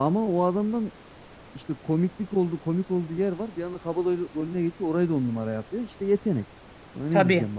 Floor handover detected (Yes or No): Yes